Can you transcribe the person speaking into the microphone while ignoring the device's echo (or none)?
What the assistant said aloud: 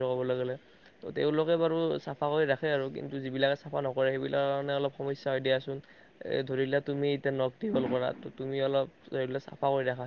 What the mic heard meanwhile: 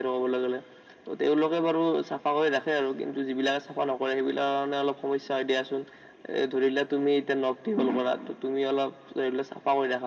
none